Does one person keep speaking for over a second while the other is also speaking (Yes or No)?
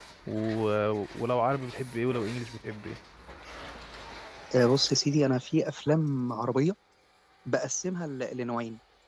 No